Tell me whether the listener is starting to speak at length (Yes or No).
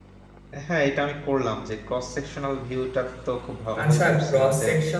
Yes